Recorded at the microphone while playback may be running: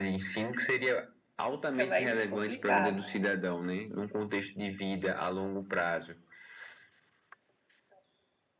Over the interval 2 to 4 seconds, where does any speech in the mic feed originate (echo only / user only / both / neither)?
both